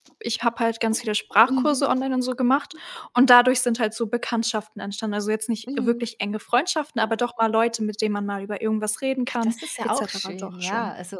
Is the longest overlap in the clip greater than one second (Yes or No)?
Yes